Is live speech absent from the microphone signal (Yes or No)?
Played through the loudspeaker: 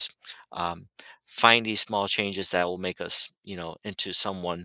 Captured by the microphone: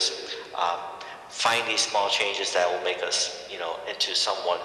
Yes